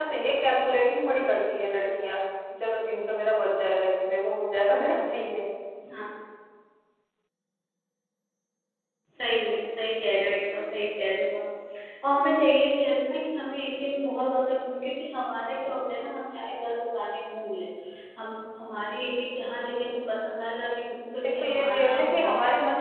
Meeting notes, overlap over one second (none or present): present